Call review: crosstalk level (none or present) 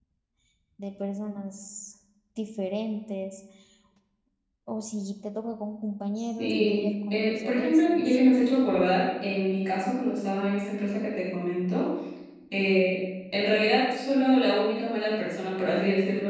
present